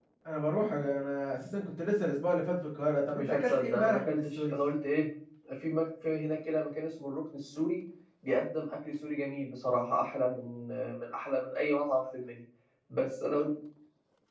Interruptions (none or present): present